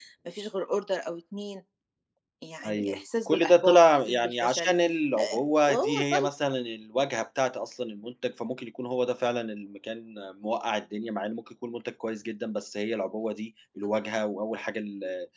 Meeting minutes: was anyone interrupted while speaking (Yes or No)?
Yes